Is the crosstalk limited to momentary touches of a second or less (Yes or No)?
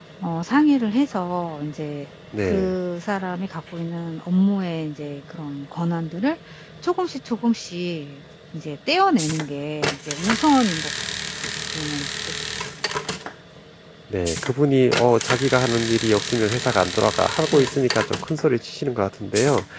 Yes